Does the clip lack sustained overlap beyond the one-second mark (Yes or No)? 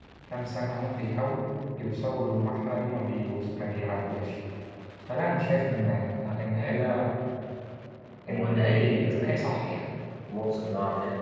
No